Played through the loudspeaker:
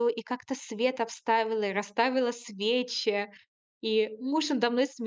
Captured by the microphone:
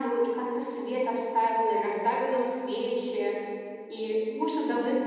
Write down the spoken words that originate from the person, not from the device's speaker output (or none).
none